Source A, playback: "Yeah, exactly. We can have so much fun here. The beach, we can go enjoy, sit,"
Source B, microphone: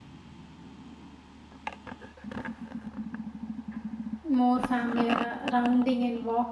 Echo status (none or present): none